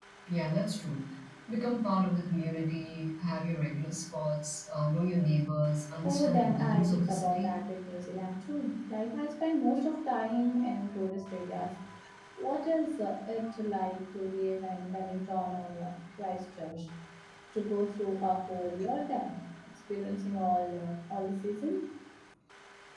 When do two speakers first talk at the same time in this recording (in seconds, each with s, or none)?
6.0 s